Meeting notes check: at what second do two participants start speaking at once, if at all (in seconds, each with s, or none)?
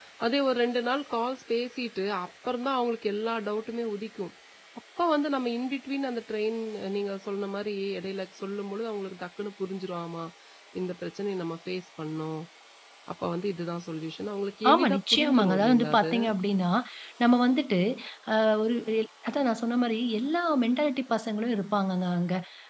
14.6 s